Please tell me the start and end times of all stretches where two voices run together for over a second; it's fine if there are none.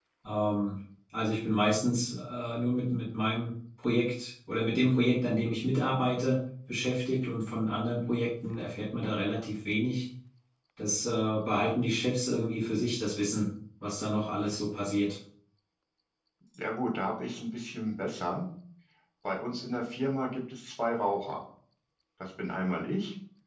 none

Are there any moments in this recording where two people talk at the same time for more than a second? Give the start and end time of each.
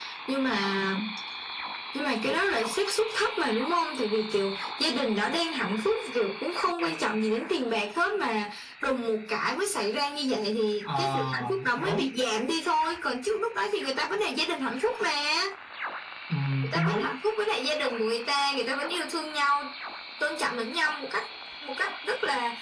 10.9-12.1

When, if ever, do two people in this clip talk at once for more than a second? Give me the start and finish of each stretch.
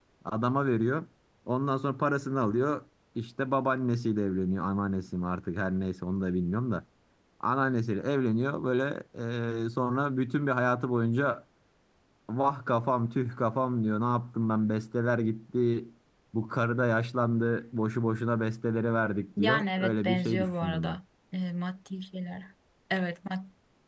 19.4-21.0

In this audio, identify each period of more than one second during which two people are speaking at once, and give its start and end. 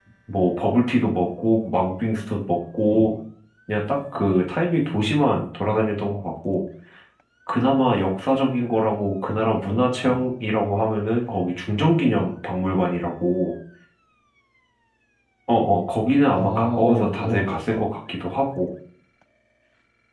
16.3-17.8

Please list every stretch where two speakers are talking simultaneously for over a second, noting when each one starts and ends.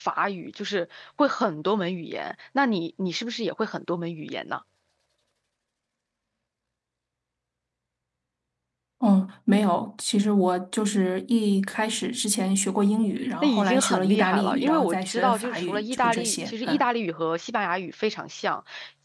13.4-16.8

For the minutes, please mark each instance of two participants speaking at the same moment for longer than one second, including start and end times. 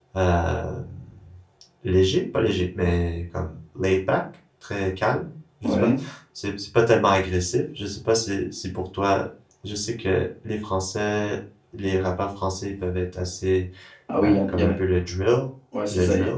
none

